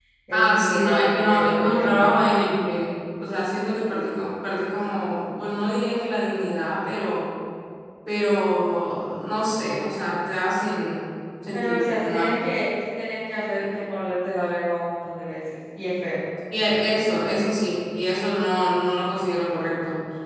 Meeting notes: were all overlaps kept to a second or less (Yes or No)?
No